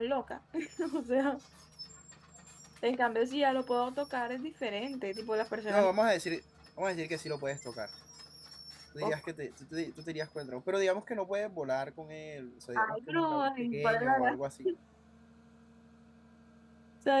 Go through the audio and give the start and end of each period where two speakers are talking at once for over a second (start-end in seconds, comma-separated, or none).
12.8-14.4